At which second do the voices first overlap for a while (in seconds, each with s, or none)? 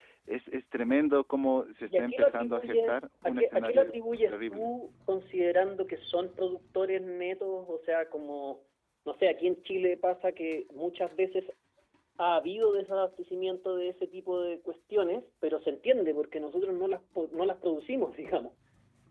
1.9 s